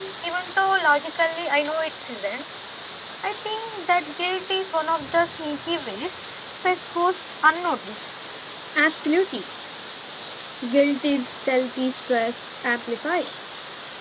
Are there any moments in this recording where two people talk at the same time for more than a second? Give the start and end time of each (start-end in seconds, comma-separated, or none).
none